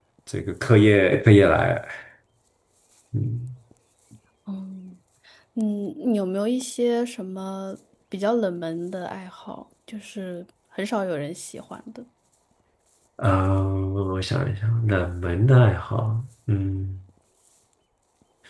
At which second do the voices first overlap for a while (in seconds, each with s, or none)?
none